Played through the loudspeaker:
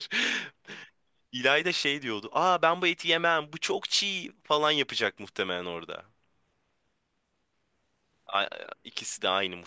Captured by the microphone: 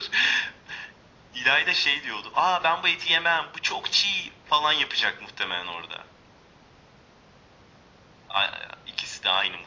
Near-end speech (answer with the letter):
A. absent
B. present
A